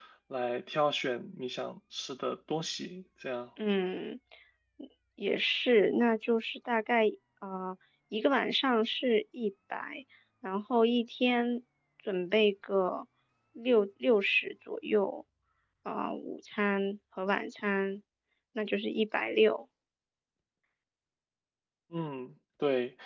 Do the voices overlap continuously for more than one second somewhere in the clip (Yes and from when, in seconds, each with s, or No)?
No